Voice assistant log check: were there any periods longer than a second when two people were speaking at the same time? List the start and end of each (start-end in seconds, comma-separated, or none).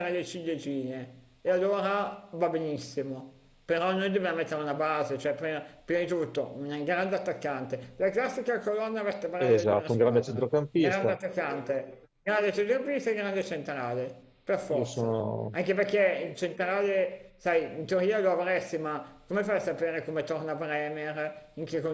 9.4-11.2